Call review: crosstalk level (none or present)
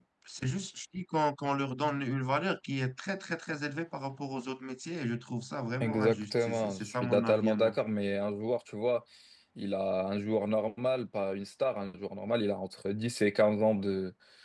present